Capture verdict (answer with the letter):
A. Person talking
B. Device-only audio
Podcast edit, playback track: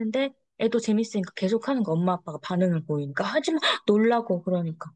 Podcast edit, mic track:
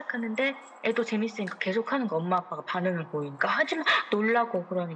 B